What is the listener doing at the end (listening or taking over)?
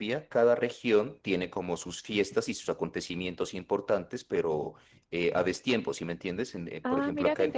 taking over